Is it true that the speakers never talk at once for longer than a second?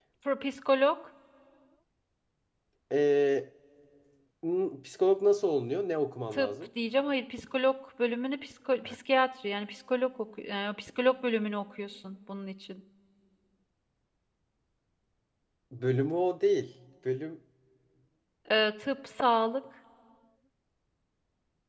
Yes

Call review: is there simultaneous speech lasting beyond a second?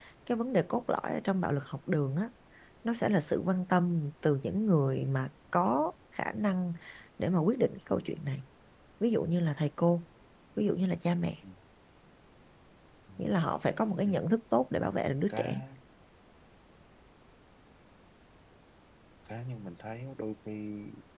No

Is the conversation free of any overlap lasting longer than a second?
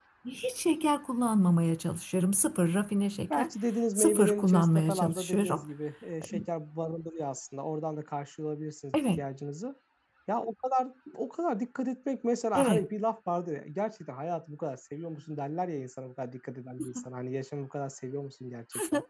No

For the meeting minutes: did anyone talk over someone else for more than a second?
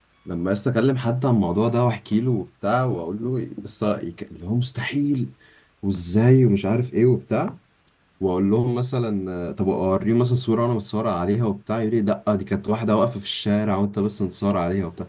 No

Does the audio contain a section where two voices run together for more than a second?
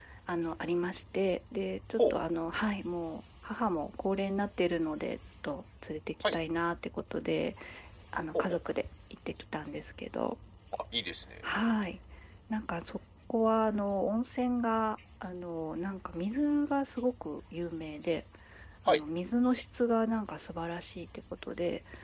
No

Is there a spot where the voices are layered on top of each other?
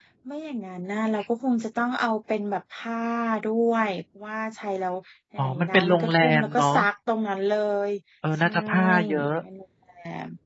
Yes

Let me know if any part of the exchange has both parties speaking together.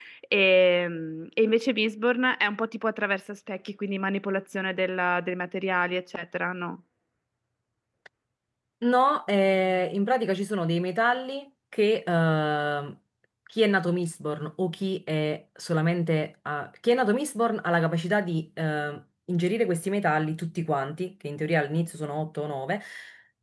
No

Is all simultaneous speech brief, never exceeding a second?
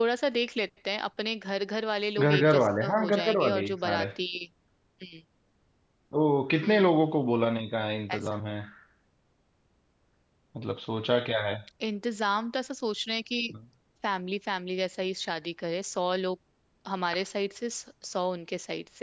No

